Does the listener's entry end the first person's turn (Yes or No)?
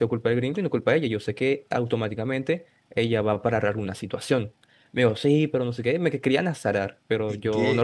Yes